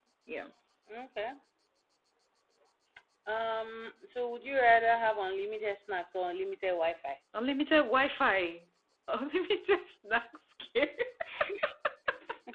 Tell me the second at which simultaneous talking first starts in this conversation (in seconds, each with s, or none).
none